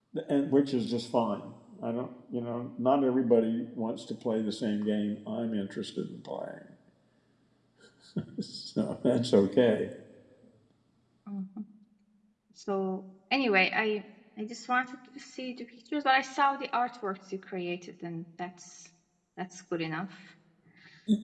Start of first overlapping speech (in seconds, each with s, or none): none